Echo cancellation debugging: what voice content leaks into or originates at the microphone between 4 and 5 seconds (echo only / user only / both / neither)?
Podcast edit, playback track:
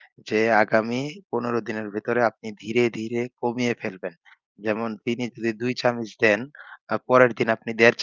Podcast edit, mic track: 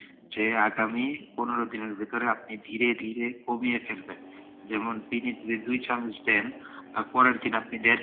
echo only